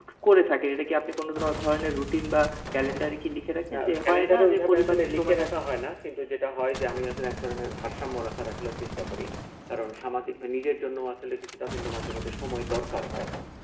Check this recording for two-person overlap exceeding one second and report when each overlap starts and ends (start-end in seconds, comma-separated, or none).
3.7-5.5